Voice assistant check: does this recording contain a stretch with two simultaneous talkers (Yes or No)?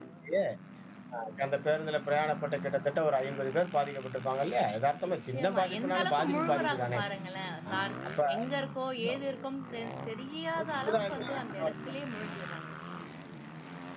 Yes